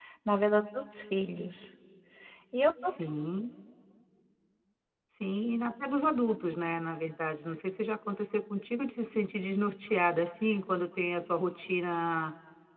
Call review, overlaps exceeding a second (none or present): none